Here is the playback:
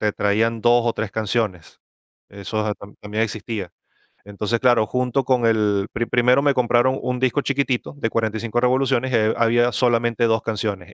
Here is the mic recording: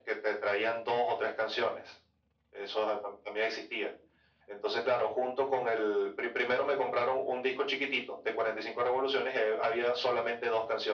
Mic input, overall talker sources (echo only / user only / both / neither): echo only